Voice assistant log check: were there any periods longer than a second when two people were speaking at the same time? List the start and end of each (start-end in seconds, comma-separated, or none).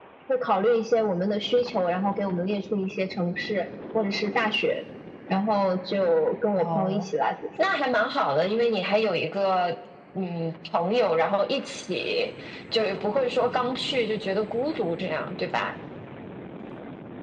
none